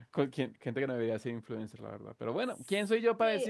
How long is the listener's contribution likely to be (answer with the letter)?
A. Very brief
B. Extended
B